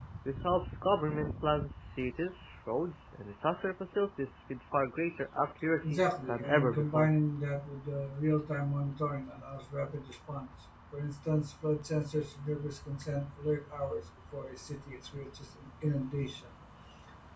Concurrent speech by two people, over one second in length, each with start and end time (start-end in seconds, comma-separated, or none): 5.8-7.1